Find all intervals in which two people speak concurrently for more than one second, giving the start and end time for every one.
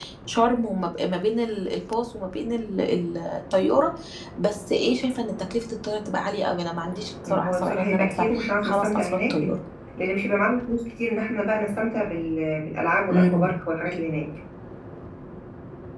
7.2-9.4

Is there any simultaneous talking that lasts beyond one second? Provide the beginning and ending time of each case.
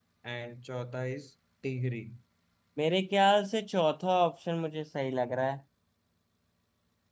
none

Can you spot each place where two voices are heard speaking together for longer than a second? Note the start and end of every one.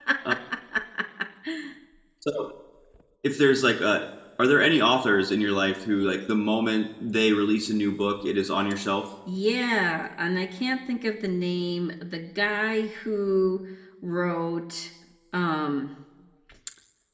none

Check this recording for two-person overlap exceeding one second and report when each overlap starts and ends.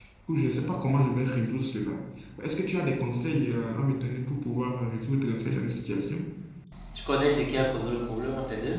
none

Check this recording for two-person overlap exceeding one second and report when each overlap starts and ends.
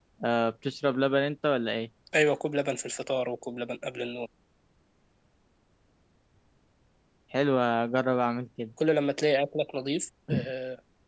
none

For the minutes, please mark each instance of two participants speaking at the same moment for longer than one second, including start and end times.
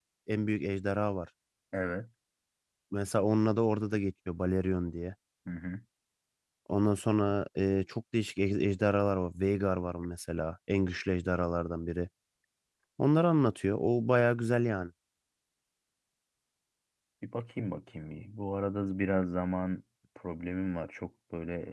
none

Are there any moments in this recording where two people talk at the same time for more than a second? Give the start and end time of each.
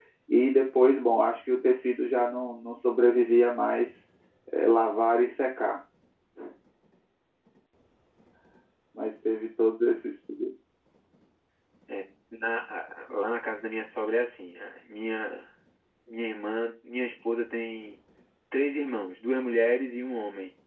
none

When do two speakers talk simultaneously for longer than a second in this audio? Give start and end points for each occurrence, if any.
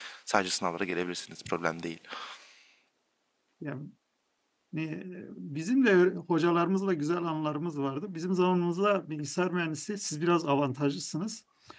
none

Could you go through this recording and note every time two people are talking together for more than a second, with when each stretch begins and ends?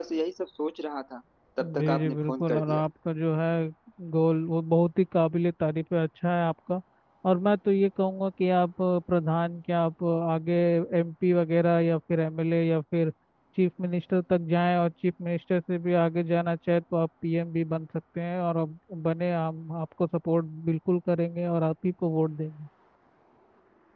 1.6-2.8

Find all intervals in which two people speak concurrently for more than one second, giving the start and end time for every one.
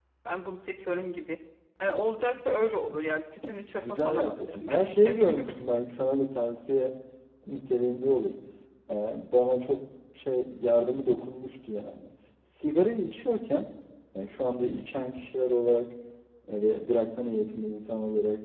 3.8-5.5

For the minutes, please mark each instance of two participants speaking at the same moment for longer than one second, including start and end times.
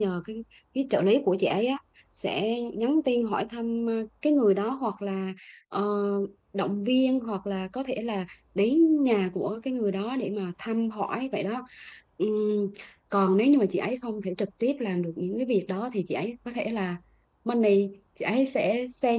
none

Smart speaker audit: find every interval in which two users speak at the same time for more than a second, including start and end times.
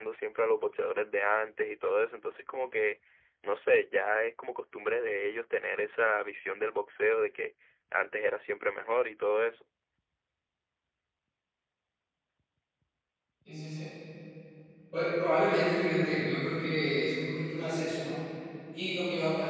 none

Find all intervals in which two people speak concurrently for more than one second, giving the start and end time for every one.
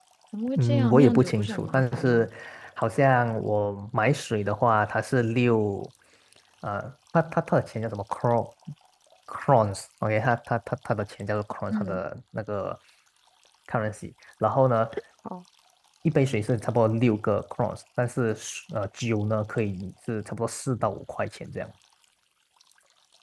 0.6-2.3

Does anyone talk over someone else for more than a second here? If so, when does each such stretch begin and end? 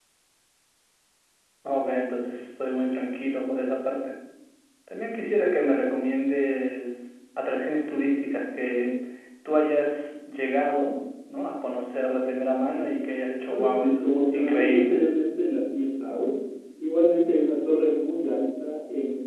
13.5-15.0

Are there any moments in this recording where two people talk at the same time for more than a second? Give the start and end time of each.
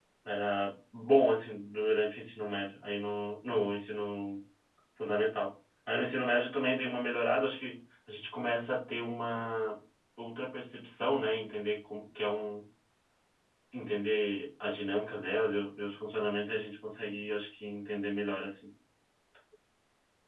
none

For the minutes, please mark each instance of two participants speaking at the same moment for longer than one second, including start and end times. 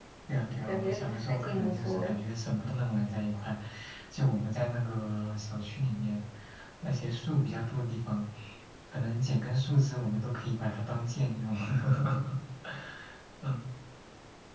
0.6-2.1

